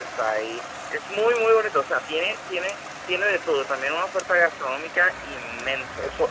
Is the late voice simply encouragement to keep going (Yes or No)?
No